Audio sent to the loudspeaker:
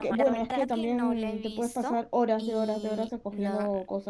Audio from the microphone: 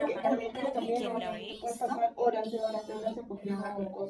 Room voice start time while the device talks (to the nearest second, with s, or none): 1 s